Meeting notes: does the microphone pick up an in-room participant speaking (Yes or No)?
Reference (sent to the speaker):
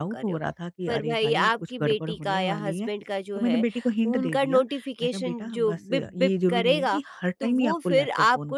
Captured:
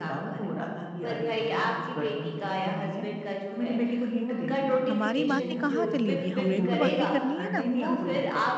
Yes